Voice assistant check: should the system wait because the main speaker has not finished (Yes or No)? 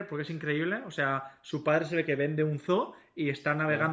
Yes